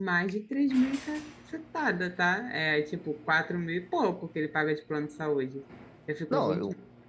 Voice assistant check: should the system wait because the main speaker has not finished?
No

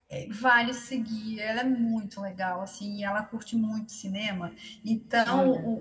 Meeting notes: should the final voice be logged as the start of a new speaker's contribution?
No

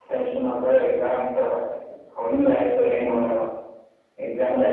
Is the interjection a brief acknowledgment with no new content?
Yes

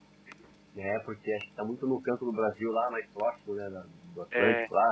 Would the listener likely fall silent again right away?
Yes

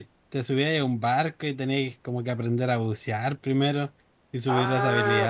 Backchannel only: No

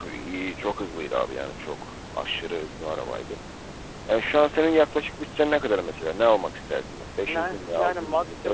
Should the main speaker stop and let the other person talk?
Yes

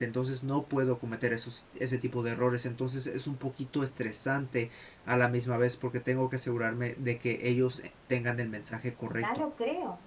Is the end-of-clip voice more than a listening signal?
Yes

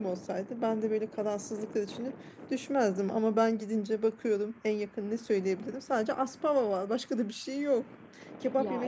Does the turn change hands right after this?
No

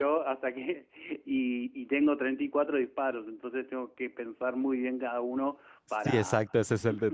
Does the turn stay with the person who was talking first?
No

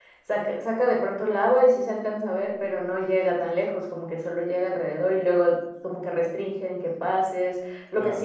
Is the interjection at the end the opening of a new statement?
No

